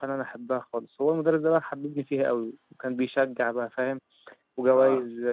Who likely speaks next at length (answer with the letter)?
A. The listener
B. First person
B